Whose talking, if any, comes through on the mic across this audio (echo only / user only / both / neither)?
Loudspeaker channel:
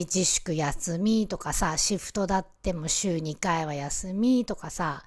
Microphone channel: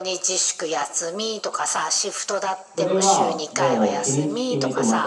both